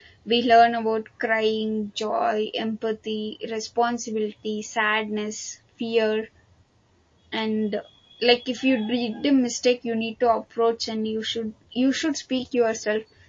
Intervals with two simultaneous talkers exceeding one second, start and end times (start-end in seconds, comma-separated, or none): none